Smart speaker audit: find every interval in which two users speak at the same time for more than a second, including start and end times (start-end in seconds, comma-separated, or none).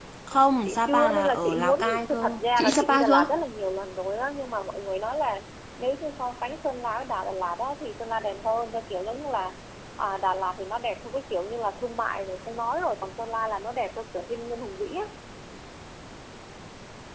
0.6-3.3